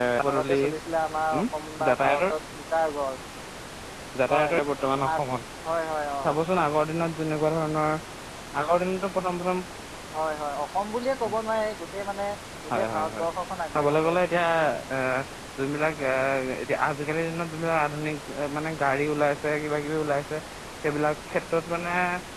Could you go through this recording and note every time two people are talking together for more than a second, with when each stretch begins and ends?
none

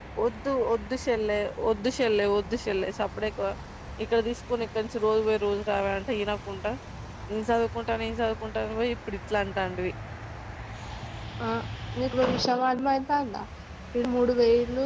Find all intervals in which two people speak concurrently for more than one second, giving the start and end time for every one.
none

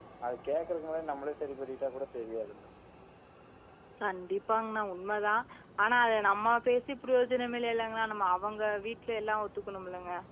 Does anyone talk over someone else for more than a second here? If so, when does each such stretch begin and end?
none

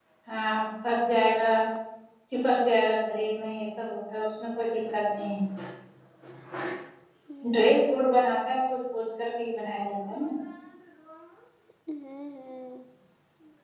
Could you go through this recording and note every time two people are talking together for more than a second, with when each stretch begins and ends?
none

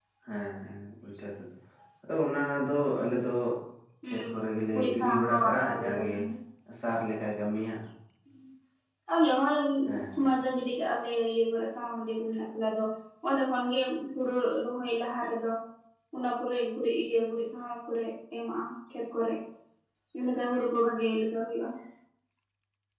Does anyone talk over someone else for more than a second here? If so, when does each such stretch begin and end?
4.8-6.1

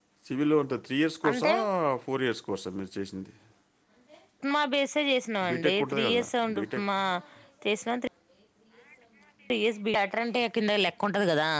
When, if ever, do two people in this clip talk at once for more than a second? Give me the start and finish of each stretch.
5.5-6.8

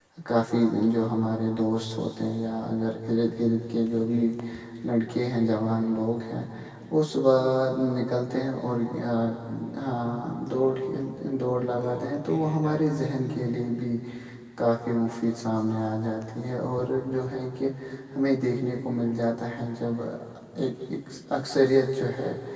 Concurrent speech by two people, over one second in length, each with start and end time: 11.8-13.1

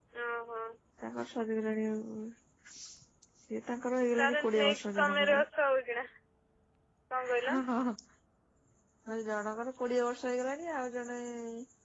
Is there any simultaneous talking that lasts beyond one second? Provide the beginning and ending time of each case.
4.2-5.4

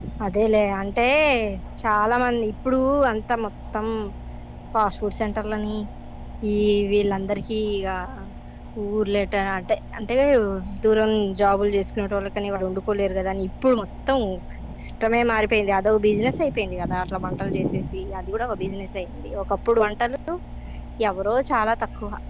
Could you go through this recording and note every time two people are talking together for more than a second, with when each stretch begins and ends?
none

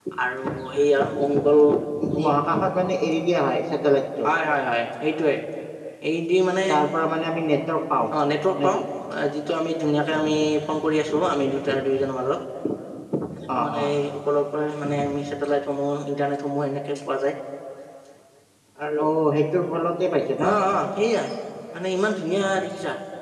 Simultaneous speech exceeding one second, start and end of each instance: none

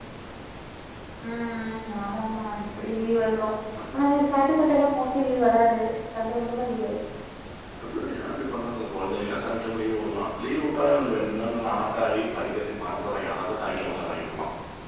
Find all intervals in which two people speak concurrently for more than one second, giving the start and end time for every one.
none

